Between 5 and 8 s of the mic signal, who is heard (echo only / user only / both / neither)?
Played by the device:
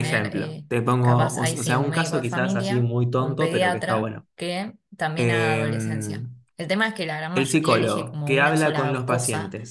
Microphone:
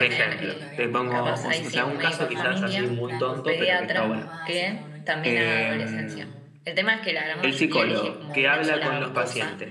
both